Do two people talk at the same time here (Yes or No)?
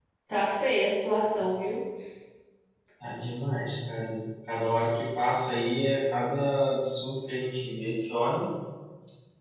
No